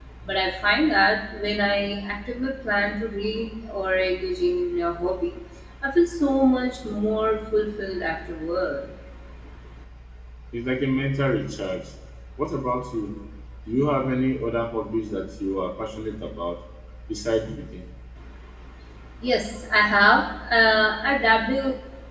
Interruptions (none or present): none